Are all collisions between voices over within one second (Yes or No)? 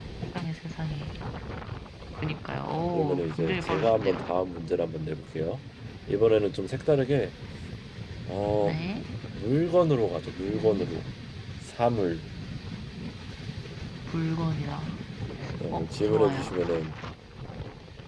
No